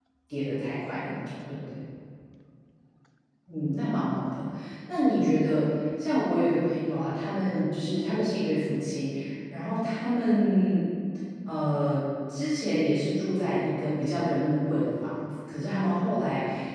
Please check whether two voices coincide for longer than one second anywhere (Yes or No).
No